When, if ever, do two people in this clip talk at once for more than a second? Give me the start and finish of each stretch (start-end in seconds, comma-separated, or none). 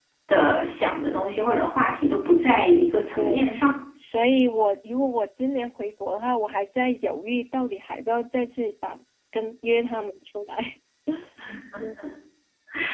none